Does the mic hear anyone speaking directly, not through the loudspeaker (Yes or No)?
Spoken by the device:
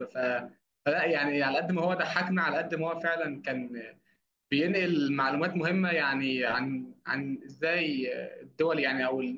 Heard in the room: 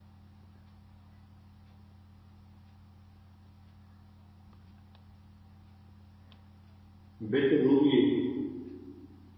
Yes